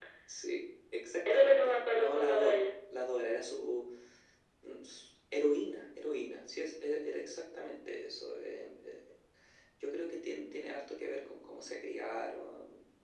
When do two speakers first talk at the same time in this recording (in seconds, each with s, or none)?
1.3 s